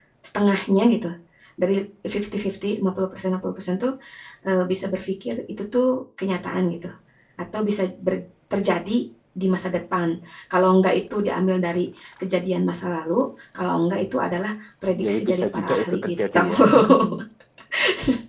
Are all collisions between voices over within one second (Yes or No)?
No